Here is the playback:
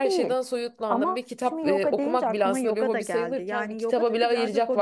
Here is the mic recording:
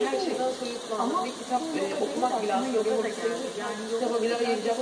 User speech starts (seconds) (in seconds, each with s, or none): none